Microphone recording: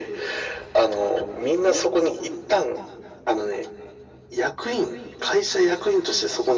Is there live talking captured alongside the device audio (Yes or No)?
No